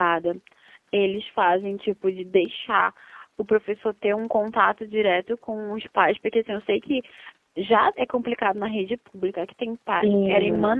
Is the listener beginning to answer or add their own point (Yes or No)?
No